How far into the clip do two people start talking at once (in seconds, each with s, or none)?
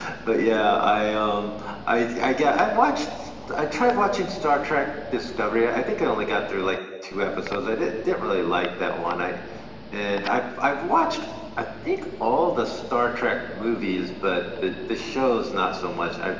none